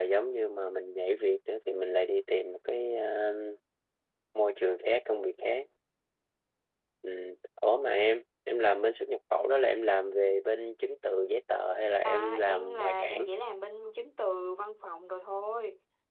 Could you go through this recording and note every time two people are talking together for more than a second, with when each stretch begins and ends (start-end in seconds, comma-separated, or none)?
12.0-13.3